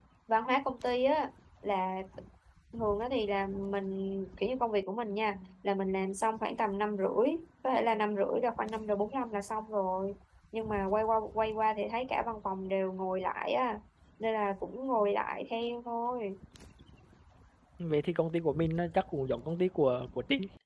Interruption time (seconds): none

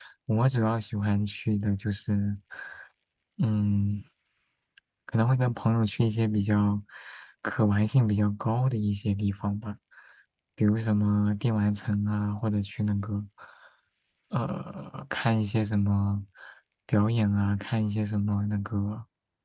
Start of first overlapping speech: none

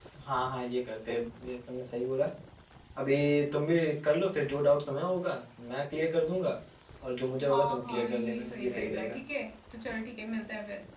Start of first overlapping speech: 7.5 s

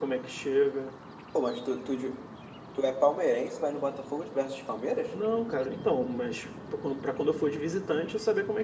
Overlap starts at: none

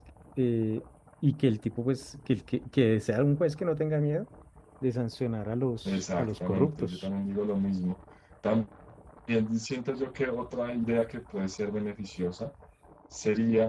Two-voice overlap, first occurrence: 5.8 s

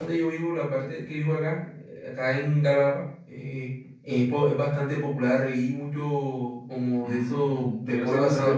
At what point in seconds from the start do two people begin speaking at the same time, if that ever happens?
7.0 s

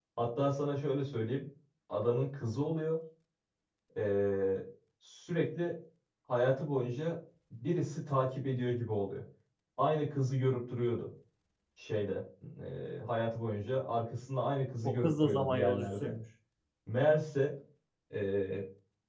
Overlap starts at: 14.8 s

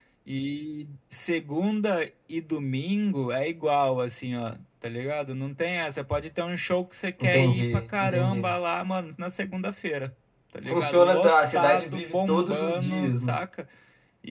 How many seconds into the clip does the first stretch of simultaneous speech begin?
7.2 s

